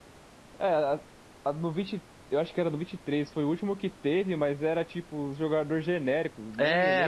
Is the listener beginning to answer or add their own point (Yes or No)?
Yes